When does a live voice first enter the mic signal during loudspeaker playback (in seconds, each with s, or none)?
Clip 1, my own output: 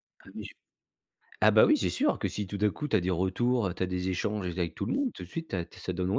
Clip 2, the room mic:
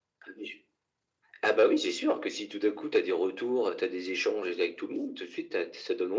none